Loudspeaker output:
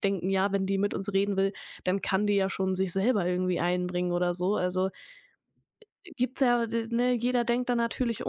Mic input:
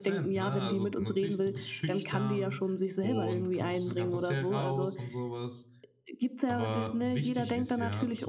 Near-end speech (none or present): present